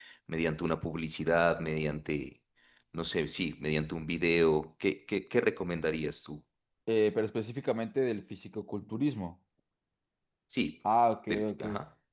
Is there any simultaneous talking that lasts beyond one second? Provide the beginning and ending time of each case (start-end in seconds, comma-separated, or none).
none